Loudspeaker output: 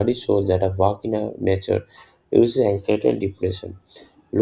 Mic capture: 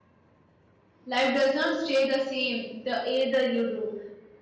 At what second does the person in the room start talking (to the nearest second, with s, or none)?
1 s